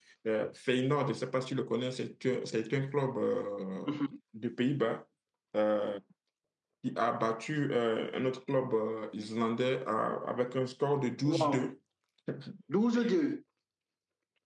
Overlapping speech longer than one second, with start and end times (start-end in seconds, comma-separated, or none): none